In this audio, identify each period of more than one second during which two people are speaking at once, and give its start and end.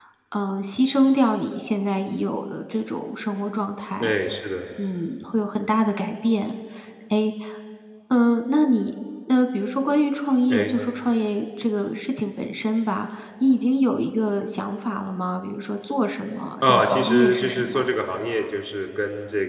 16.6-17.9

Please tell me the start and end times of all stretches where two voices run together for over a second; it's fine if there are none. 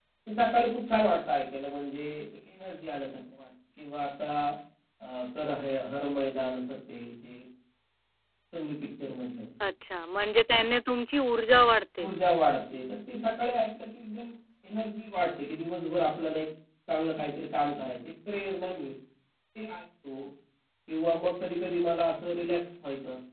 none

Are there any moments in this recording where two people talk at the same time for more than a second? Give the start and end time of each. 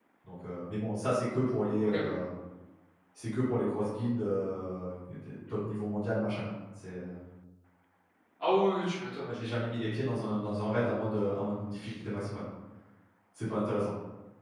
none

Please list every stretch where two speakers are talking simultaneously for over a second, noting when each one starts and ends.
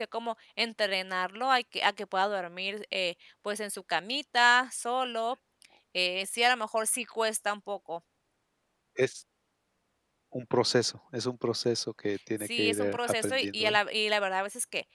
12.4-13.8

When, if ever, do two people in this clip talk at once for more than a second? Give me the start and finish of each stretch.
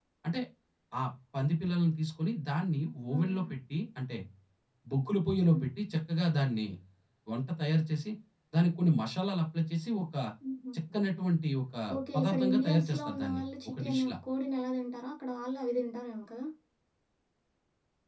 12.2-14.1

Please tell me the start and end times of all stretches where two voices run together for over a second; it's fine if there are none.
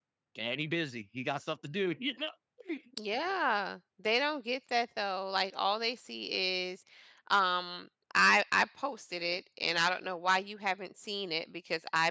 none

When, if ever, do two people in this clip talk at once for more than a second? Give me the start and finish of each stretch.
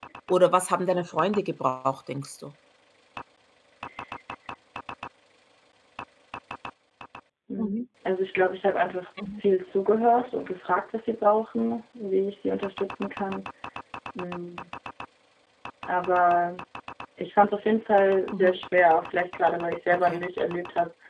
none

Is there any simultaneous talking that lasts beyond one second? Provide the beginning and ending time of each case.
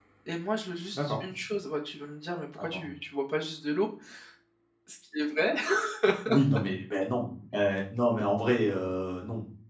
none

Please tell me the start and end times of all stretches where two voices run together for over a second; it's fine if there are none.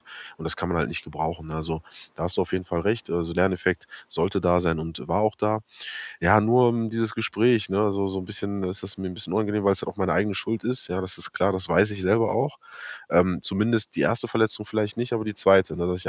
none

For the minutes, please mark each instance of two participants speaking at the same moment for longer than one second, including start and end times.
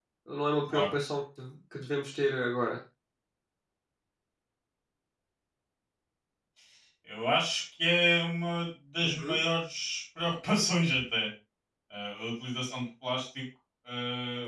none

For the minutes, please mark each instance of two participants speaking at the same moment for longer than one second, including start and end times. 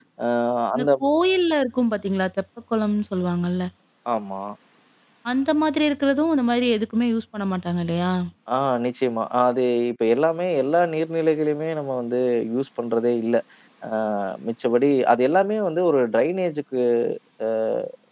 none

